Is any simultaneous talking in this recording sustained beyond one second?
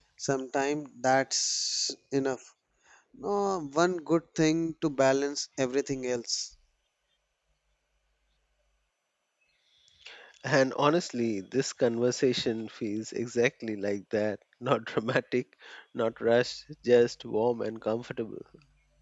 No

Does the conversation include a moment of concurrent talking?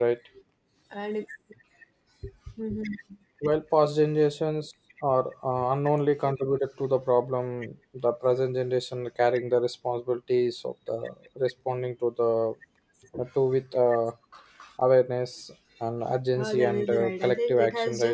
Yes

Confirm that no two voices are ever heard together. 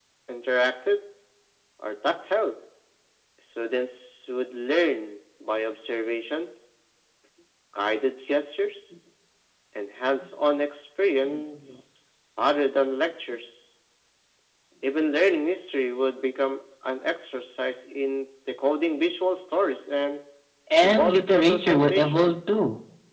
No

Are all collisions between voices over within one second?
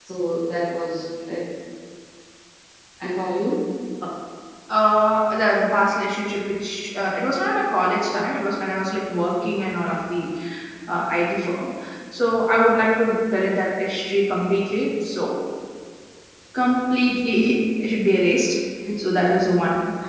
Yes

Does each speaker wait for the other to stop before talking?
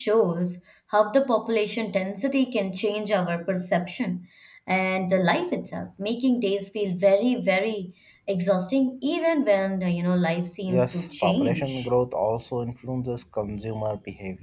No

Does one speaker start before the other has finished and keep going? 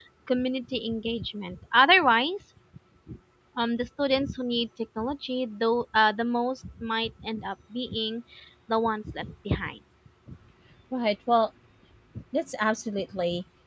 No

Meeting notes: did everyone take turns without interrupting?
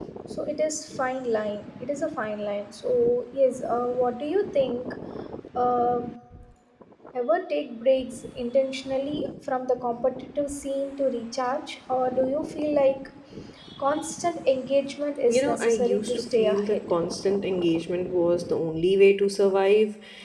No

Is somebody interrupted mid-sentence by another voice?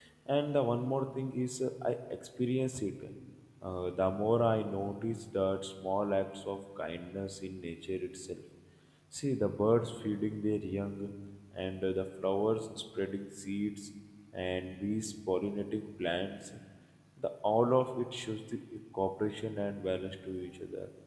No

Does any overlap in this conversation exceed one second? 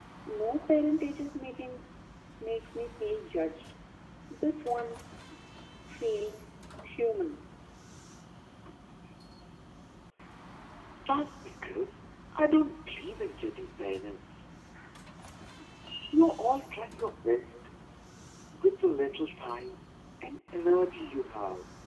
No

